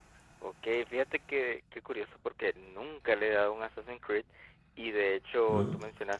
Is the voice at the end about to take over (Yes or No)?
No